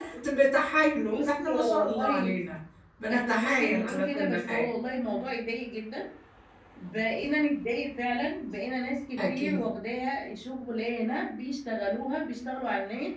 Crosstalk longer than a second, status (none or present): present